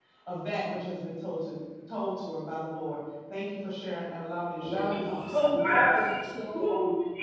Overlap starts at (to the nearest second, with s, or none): 5 s